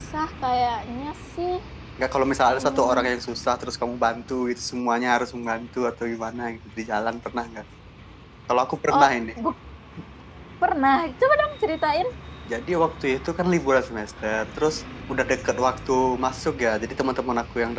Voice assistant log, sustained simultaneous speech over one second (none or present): none